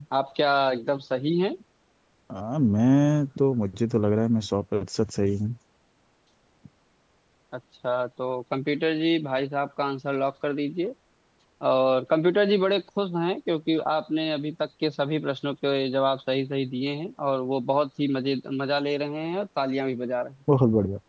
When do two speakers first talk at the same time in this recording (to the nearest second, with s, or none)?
none